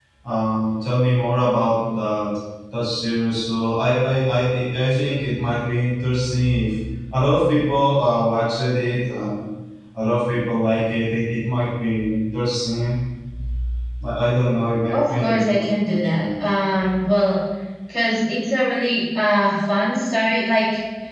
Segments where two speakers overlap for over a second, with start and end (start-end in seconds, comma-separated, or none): 14.9-16.5